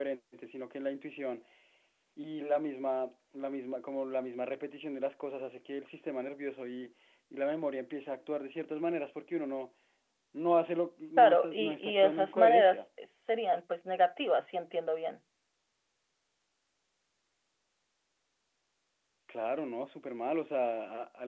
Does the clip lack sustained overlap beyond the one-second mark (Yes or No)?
No